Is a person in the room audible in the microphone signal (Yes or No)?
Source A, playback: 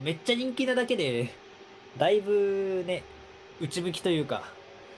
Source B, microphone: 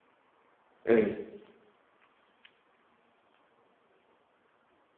Yes